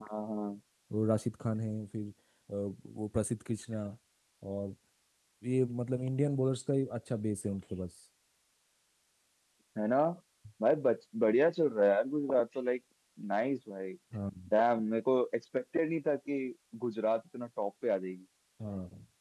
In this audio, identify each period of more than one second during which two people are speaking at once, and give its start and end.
none

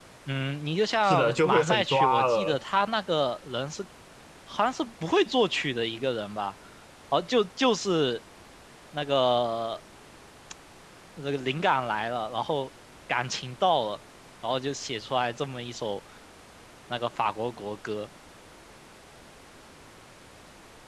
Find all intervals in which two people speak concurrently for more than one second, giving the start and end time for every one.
1.0-2.6

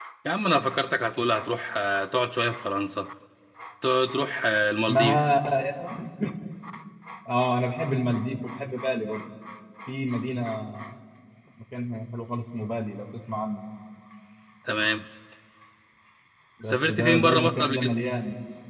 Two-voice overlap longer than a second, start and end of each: 16.7-17.9

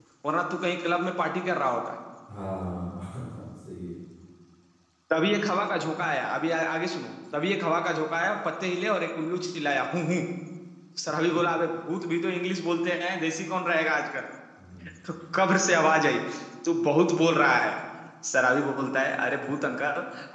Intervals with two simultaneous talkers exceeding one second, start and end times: none

